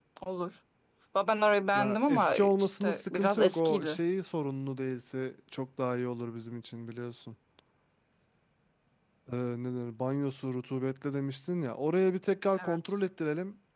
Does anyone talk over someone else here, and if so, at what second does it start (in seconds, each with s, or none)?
1.7 s